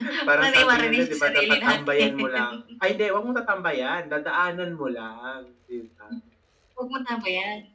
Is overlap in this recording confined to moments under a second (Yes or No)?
No